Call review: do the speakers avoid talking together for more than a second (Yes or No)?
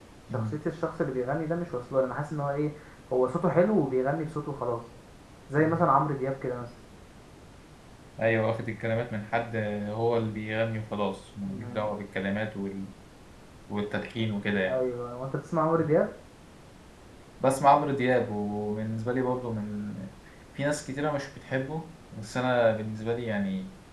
Yes